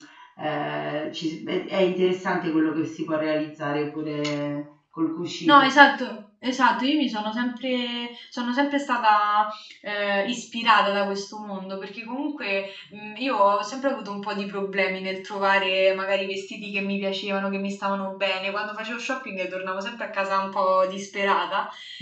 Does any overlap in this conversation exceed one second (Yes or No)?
No